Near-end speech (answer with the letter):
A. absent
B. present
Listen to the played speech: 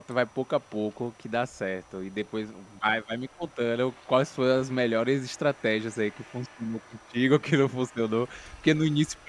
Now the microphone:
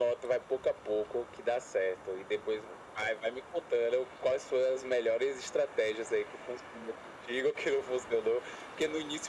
A